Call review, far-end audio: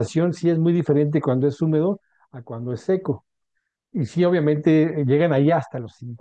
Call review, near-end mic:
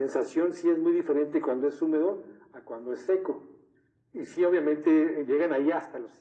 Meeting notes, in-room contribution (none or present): none